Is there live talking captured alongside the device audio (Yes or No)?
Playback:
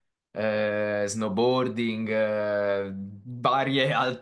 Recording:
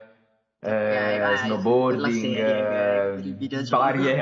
Yes